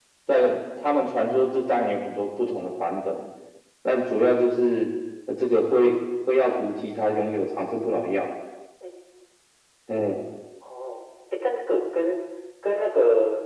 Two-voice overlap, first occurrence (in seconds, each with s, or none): none